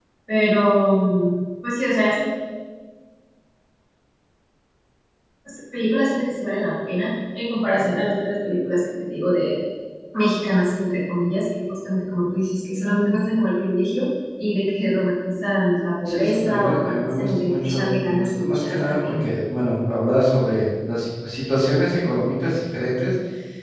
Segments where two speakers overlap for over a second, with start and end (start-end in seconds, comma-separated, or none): 16.1-19.3